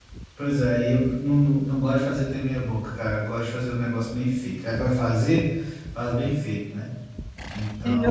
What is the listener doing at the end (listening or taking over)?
taking over